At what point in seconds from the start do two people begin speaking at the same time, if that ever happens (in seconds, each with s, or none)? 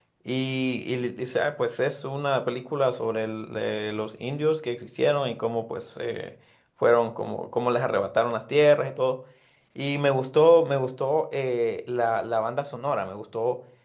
none